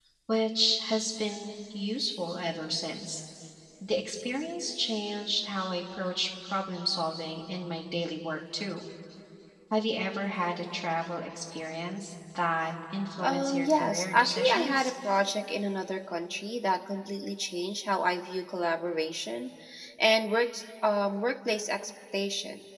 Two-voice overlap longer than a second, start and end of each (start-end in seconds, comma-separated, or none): 13.2-14.9